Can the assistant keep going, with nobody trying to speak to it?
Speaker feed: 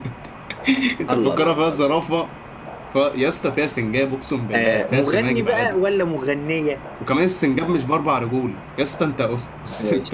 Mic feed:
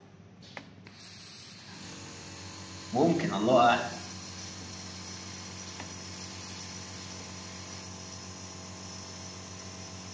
No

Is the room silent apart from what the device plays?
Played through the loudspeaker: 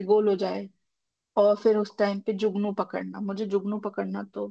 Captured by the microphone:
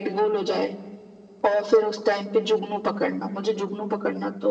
Yes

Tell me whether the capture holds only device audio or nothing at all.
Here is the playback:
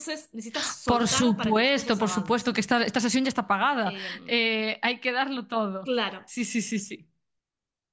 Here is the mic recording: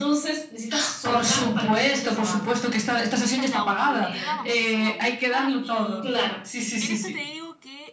No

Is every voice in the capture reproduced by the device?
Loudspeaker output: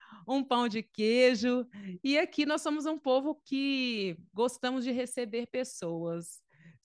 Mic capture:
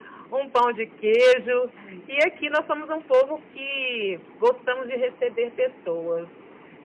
Yes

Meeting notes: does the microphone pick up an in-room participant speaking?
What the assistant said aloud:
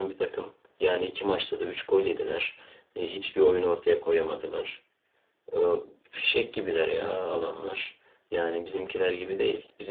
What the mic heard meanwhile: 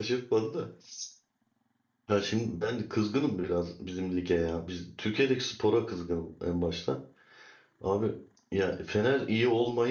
Yes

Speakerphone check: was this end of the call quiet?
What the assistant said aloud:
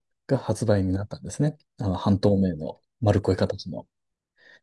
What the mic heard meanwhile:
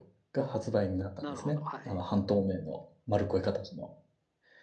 No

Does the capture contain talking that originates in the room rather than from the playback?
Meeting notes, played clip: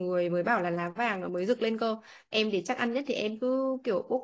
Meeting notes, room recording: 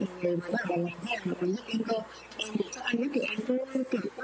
No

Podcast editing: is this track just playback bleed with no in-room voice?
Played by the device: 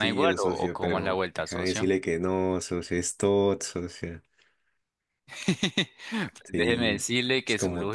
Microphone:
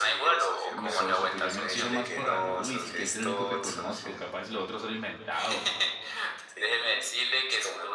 No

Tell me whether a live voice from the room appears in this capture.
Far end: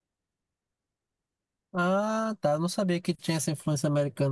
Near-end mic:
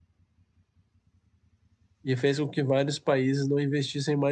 Yes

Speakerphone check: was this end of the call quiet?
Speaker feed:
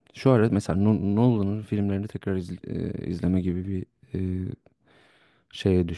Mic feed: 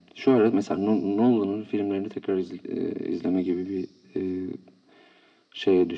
Yes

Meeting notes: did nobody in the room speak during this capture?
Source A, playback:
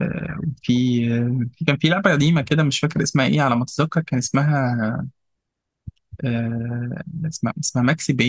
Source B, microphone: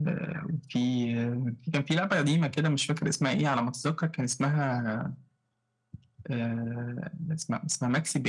Yes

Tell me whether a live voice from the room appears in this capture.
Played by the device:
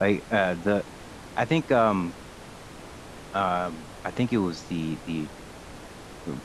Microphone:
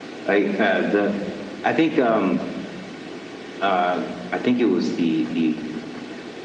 No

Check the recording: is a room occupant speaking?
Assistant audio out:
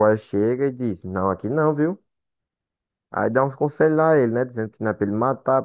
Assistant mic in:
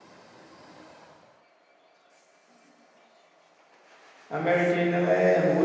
Yes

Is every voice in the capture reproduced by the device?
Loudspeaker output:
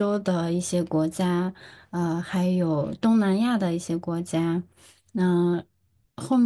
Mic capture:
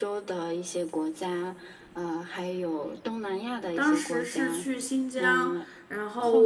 No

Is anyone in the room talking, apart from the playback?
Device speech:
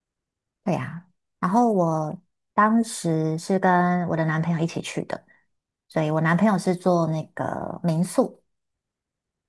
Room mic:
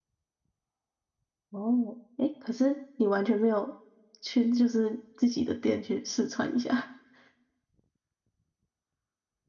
Yes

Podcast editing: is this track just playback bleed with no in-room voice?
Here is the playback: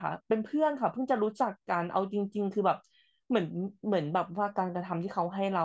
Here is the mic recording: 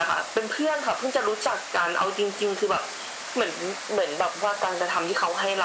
Yes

